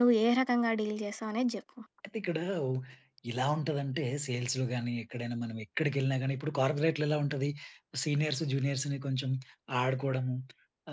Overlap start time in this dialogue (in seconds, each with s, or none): none